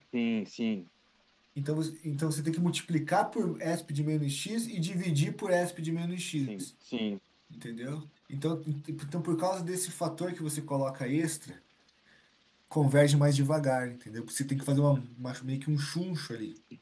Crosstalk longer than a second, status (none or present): none